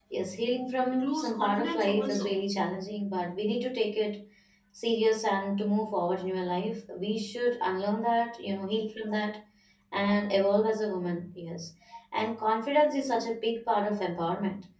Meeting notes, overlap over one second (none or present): present